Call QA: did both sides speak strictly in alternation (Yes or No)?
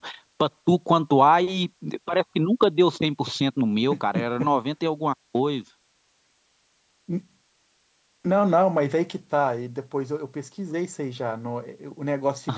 Yes